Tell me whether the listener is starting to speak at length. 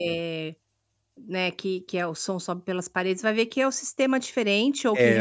No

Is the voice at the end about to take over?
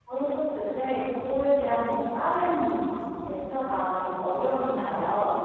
Yes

